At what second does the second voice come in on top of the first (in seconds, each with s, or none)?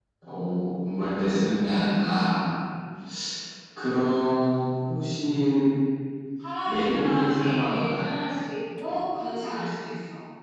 6.6 s